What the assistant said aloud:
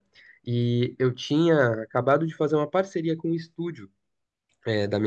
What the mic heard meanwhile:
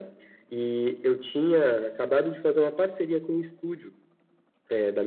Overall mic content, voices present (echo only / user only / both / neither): echo only